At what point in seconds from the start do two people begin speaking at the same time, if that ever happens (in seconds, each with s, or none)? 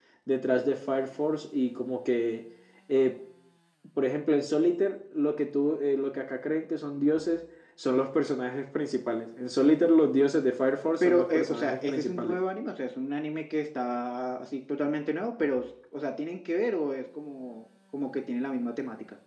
10.8 s